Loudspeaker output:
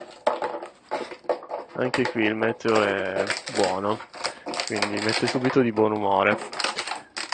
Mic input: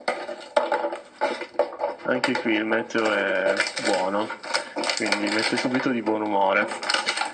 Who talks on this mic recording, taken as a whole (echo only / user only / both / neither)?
echo only